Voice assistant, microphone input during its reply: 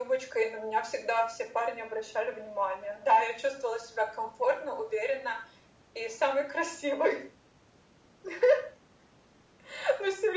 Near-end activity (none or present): none